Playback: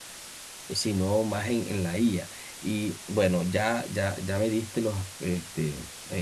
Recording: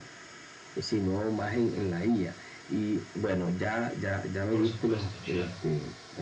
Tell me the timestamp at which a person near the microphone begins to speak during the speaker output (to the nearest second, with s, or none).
4 s